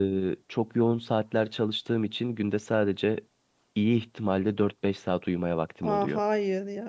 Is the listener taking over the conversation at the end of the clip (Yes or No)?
Yes